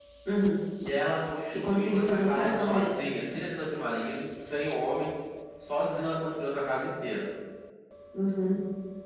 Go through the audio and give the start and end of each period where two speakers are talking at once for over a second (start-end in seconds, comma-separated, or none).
1.6-3.0